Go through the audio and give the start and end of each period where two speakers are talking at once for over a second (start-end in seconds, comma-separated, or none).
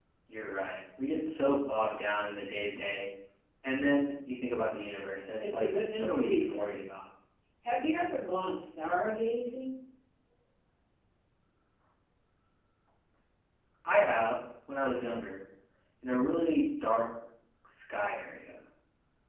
5.4-6.7